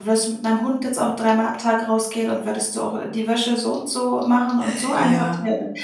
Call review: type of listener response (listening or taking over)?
listening